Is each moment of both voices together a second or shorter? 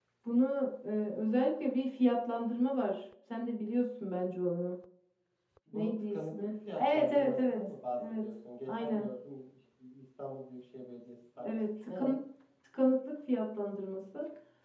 No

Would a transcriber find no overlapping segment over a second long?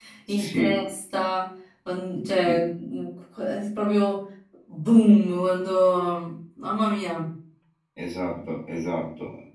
Yes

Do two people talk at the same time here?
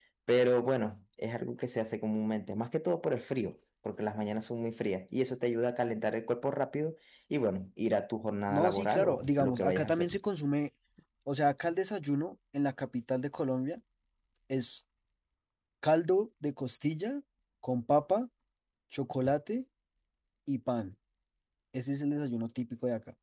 Yes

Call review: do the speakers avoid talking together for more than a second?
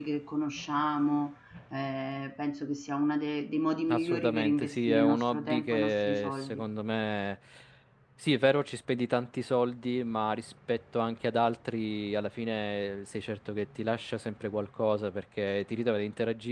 No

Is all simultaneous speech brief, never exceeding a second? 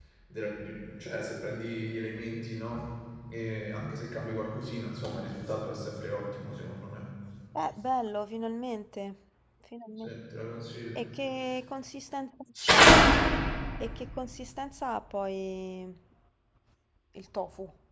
Yes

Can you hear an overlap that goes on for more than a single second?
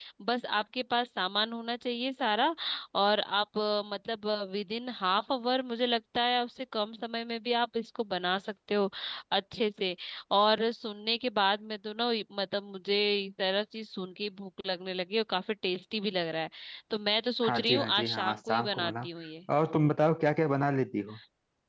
Yes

